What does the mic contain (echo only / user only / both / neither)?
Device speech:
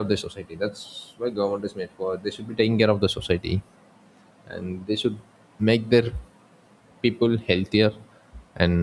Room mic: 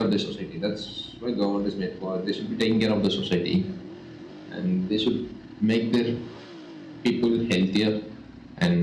echo only